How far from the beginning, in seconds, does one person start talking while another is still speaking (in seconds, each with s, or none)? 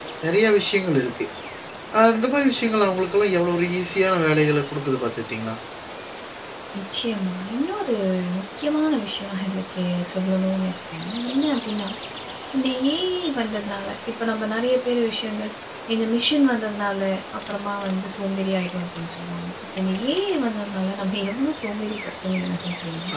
none